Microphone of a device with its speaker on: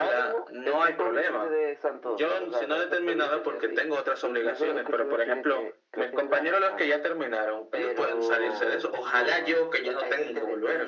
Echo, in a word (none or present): present